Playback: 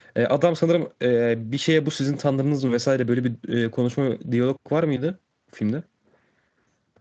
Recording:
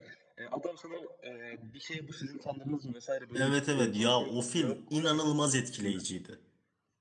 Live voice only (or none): Evet evet ya o film inanılmaz etkileyiciydi.